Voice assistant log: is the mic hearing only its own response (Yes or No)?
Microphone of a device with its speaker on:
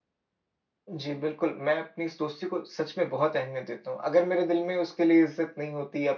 No